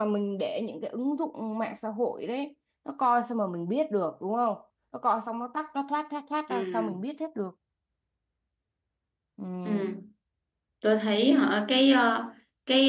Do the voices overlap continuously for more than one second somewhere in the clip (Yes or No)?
No